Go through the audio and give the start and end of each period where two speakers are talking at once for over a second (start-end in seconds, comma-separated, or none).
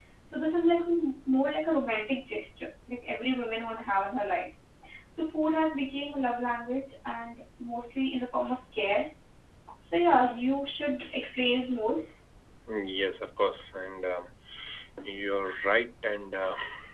none